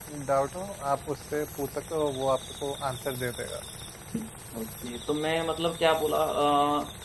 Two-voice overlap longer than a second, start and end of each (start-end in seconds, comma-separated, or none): none